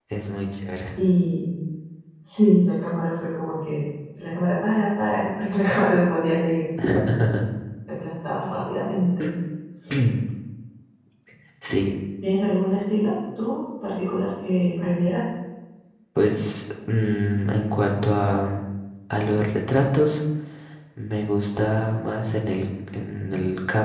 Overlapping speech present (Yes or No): No